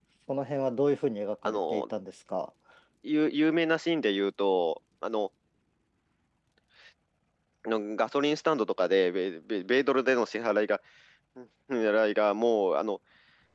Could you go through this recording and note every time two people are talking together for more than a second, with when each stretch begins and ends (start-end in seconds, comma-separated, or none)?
none